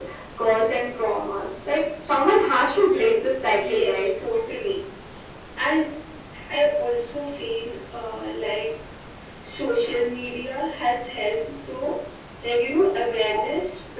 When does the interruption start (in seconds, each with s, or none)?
2.9 s